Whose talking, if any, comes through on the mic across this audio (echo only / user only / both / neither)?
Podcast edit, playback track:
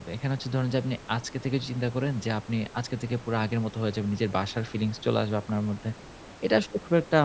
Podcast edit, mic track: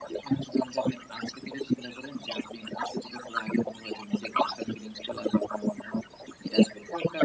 echo only